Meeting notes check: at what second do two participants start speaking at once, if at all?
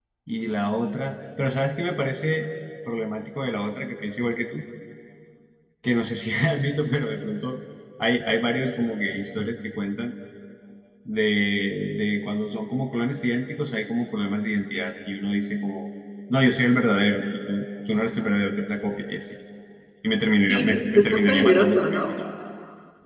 20.5 s

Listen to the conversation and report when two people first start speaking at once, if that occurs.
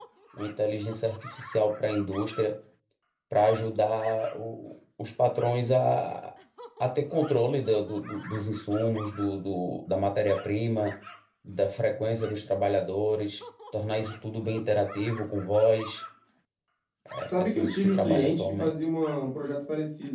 17.2 s

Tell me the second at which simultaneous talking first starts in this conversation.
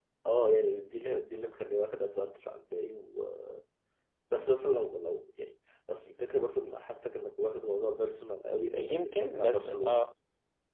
8.6 s

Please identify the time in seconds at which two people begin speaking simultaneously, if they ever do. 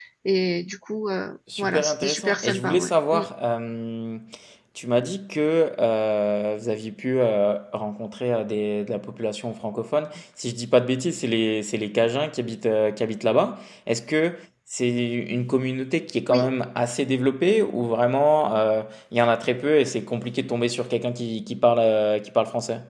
1.5 s

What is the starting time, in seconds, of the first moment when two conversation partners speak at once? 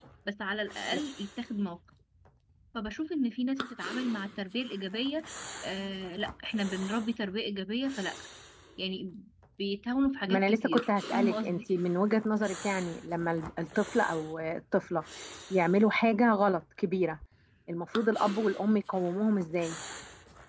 10.3 s

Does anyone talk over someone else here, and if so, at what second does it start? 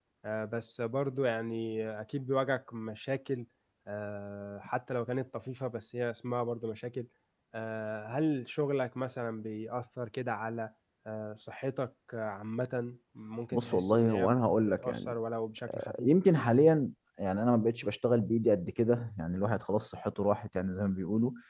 13.5 s

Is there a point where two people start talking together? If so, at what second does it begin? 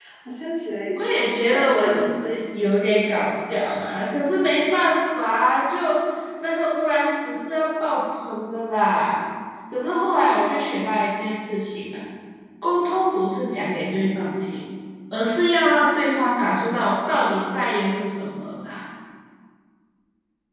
1.1 s

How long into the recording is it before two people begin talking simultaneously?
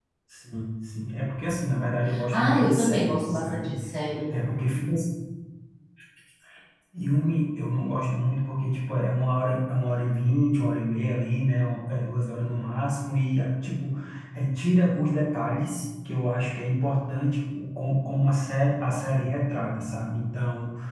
2.3 s

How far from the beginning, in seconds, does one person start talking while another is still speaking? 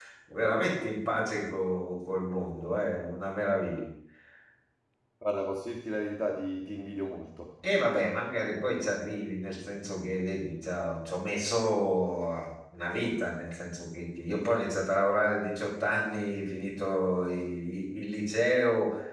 none

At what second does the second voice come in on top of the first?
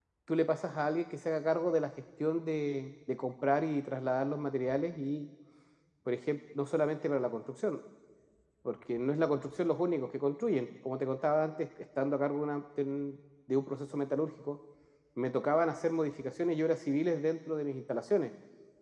none

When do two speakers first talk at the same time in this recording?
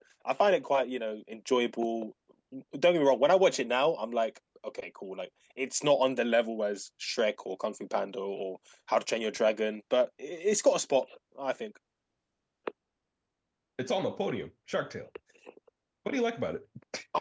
none

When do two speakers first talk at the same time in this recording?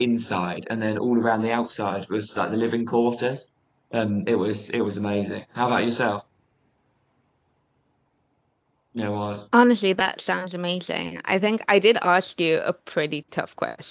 none

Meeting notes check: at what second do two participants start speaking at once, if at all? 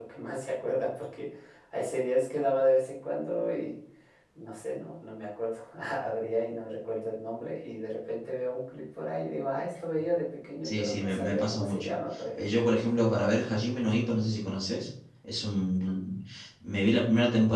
10.6 s

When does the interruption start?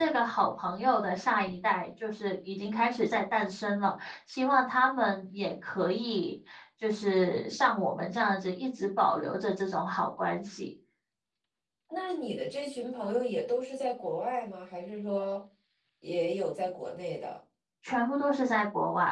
none

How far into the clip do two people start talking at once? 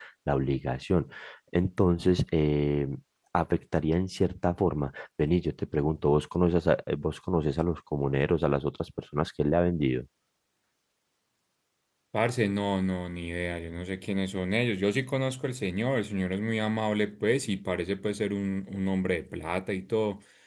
none

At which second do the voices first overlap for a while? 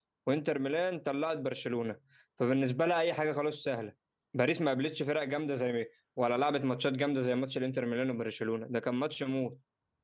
none

